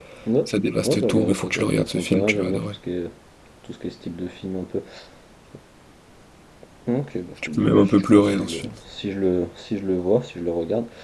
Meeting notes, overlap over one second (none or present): present